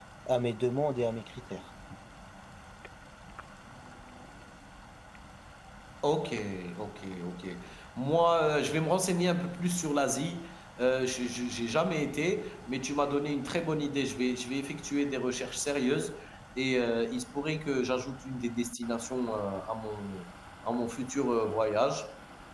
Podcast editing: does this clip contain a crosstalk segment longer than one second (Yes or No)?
No